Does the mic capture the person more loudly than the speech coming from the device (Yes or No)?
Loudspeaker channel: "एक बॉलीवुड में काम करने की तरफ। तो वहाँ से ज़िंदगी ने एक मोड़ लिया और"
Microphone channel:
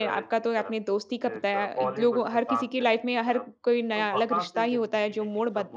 Yes